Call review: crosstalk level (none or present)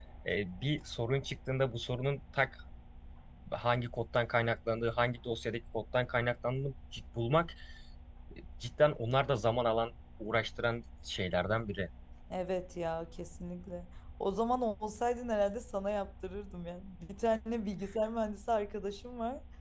none